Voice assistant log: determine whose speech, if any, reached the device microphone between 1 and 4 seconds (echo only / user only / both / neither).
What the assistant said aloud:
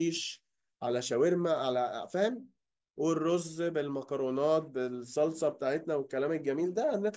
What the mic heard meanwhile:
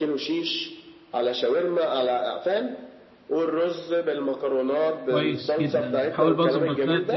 echo only